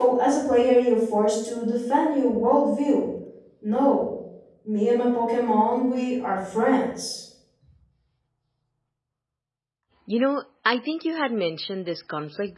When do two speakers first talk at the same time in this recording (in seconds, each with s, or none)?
none